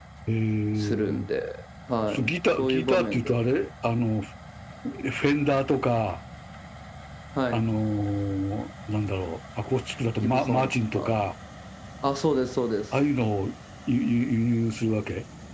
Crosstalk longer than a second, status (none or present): present